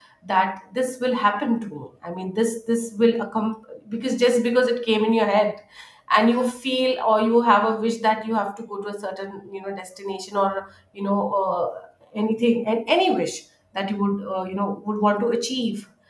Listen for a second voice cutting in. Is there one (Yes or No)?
No